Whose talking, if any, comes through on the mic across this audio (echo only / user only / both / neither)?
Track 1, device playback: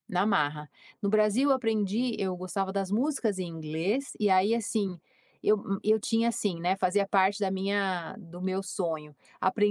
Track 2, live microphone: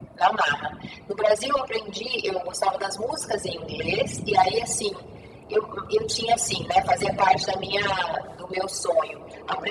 echo only